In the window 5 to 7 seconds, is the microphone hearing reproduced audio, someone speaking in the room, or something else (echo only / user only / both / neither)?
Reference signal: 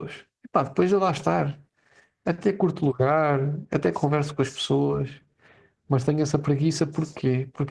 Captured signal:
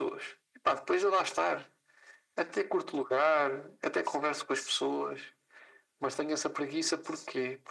echo only